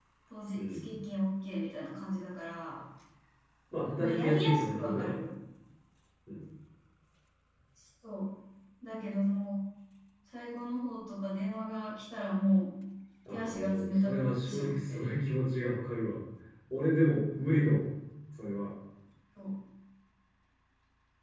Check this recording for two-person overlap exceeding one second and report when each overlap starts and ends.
4.0-5.2, 13.3-15.1

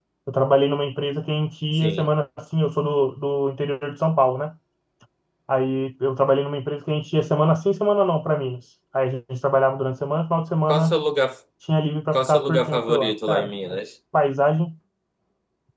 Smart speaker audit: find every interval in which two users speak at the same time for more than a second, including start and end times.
12.1-13.8

